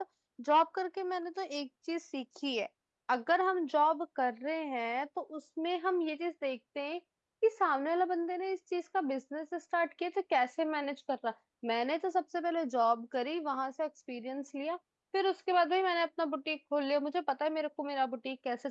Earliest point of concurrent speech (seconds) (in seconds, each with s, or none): none